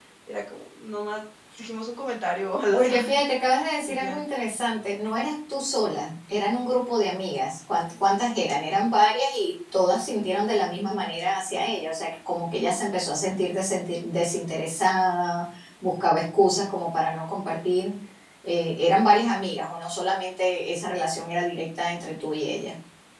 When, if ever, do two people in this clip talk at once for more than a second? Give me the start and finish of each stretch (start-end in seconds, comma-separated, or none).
none